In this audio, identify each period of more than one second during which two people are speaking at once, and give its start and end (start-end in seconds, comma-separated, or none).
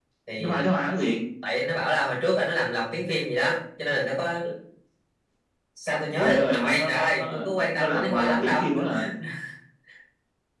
6.2-8.6